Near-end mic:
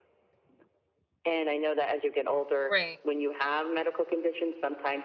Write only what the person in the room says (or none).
Right.